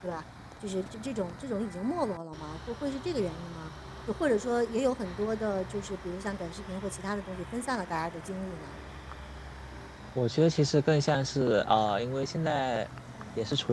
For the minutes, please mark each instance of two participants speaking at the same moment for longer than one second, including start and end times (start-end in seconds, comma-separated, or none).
none